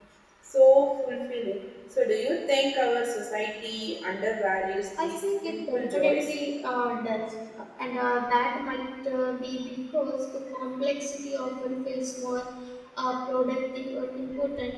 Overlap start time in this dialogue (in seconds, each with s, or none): 5.0 s